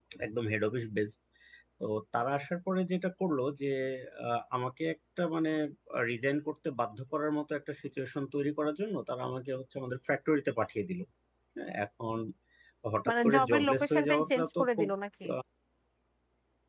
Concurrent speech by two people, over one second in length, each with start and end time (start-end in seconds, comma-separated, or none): 13.1-14.9